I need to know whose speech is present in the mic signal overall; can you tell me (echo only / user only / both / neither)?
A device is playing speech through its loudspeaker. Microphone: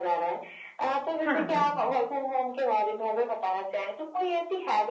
both